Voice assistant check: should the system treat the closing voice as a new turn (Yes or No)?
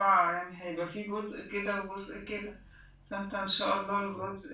No